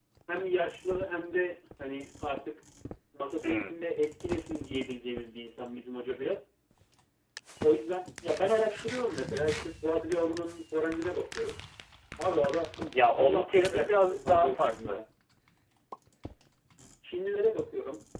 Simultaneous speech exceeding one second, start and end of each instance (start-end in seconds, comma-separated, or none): 13.0-15.0